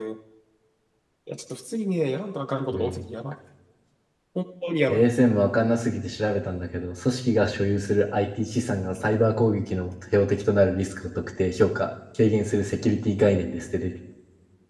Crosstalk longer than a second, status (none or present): none